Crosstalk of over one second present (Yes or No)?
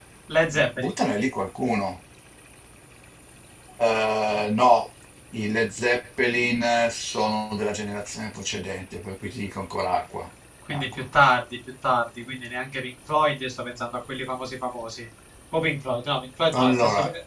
No